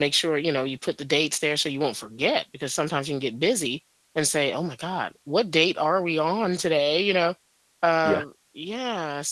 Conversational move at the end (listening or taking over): listening